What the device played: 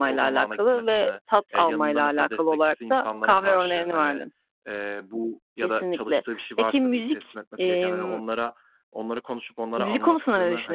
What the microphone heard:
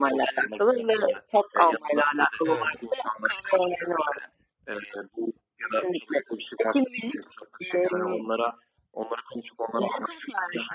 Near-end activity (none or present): present